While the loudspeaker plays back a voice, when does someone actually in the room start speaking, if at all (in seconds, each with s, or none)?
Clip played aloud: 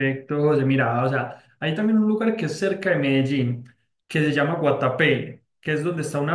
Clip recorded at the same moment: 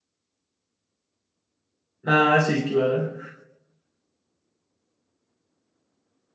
2.0 s